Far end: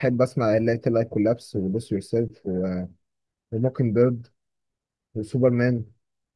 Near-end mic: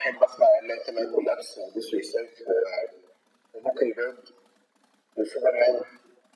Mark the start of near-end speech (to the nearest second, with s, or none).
none